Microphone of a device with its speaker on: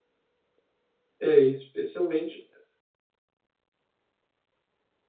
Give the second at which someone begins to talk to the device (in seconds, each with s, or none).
1.2 s